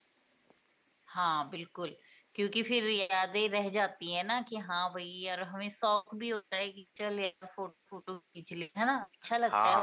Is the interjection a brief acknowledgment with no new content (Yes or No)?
No